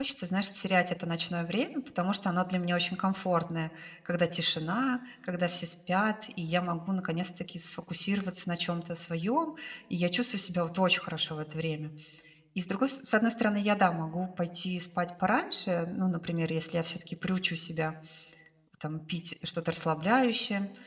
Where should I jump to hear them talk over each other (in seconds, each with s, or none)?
none